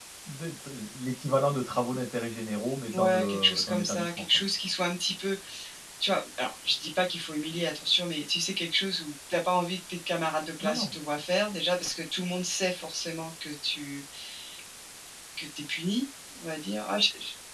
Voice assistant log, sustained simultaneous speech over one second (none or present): present